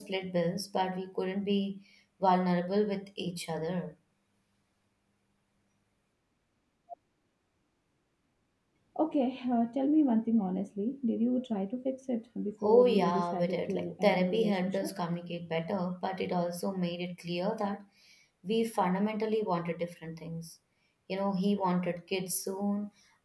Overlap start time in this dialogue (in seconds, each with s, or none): 12.6 s